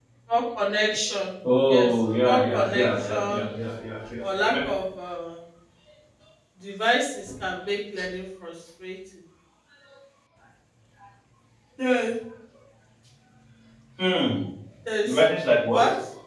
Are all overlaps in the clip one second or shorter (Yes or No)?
No